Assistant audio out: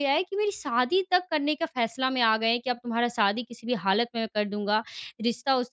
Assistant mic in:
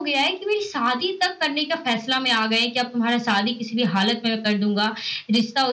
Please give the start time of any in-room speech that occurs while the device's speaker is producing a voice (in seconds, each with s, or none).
none